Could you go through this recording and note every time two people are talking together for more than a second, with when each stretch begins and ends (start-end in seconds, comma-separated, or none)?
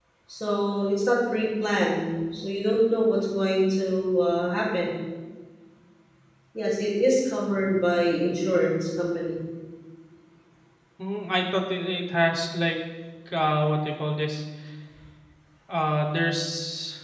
none